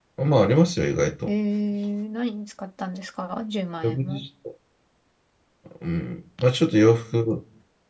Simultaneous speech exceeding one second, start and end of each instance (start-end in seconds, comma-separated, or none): none